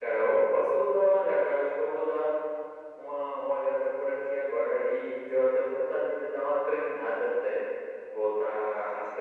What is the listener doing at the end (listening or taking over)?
listening